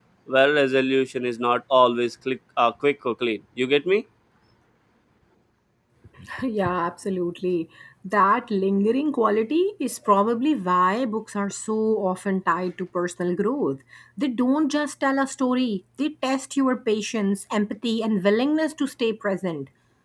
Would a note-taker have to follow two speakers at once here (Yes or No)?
No